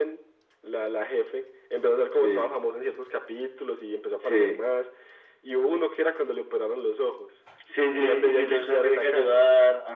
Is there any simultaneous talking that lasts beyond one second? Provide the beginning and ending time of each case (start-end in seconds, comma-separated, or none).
8.0-9.4